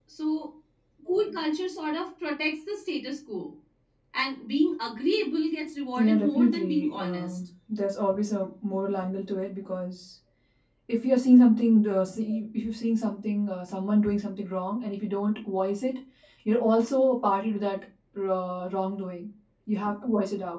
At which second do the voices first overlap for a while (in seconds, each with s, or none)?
6.0 s